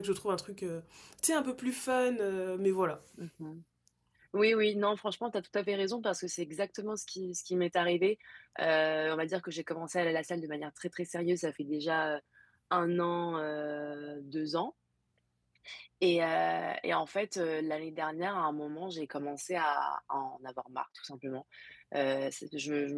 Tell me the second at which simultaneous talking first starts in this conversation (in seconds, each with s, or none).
none